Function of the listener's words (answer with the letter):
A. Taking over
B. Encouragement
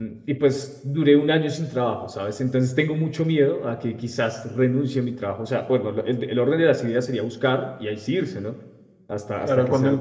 A